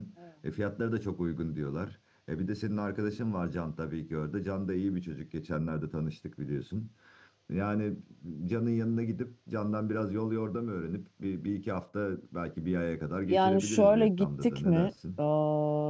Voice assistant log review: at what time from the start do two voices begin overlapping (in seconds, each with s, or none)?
13.3 s